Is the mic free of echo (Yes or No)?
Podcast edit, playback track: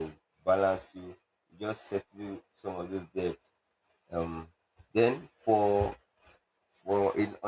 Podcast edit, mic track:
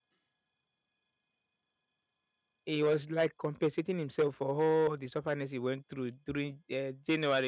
Yes